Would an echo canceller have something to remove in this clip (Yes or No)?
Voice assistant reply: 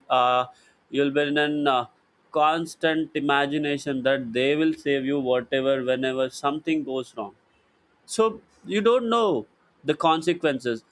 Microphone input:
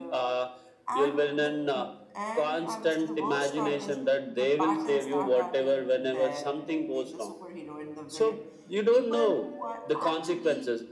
Yes